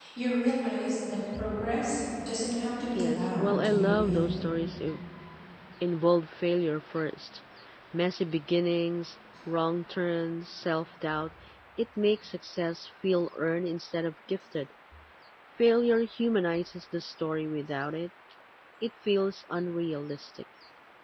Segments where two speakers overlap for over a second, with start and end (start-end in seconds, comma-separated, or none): 3.0-4.3